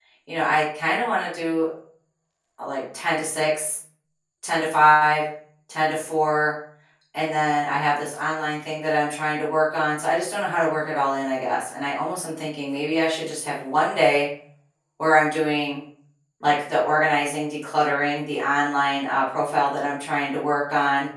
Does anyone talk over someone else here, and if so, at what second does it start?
none

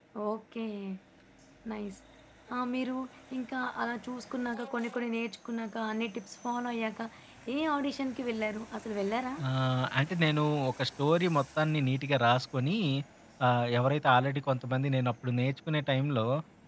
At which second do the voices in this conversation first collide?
none

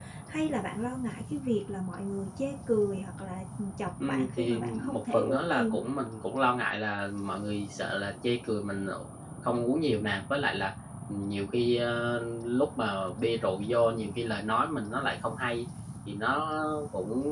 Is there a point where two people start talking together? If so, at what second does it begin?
4 s

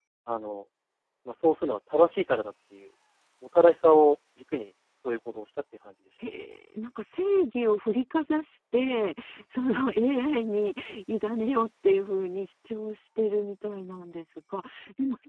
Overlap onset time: none

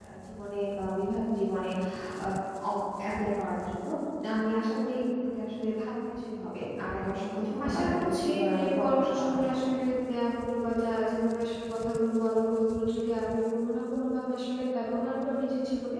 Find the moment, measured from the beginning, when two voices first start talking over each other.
8 s

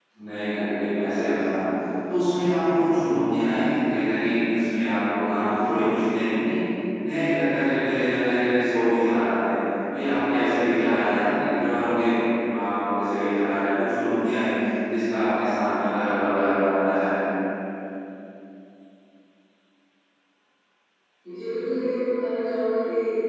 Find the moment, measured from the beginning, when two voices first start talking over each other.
none

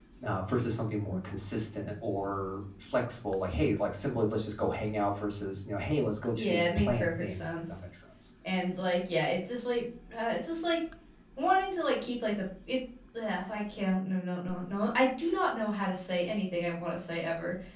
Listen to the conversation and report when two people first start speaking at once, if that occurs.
6 s

